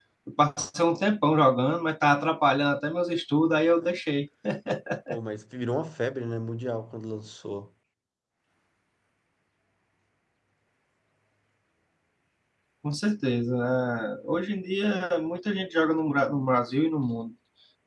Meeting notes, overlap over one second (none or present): none